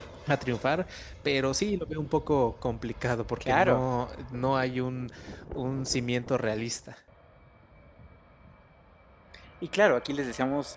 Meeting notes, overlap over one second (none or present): none